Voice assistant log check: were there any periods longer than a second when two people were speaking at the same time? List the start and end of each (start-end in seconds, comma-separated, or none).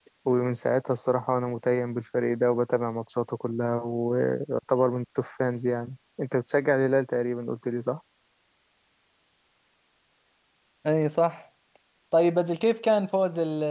none